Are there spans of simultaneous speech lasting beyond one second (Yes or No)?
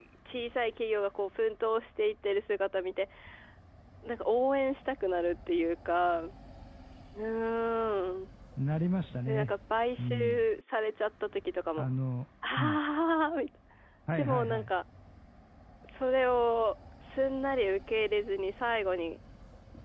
No